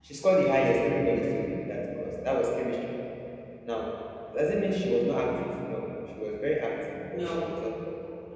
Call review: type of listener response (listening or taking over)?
listening